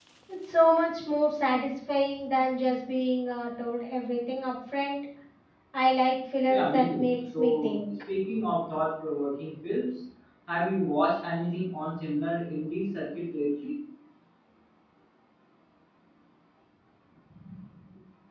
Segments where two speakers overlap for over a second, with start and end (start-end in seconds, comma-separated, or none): 6.5-7.8